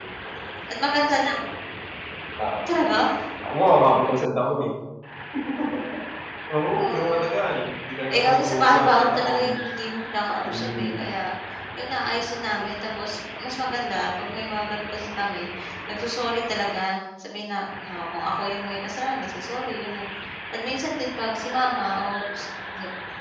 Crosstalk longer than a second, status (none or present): present